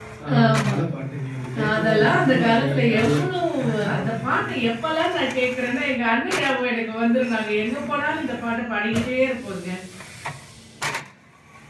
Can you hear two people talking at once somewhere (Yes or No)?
Yes